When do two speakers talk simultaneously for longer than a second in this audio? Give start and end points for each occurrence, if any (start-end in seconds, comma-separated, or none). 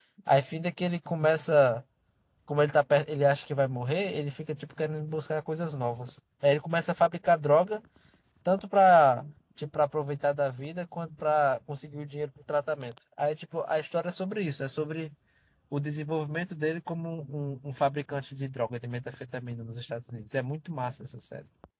none